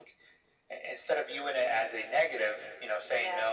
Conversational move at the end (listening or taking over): listening